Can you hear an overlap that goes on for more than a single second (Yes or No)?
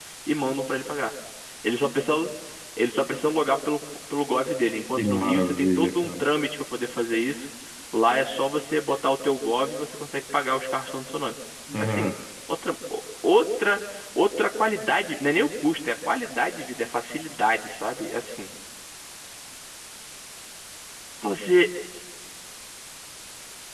Yes